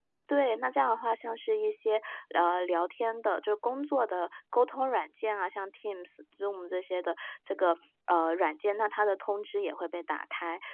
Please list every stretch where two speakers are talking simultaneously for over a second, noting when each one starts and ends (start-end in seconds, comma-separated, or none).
none